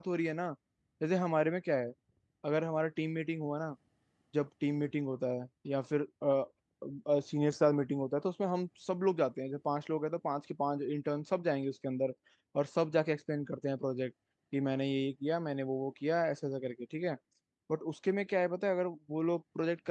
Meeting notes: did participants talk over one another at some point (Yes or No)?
No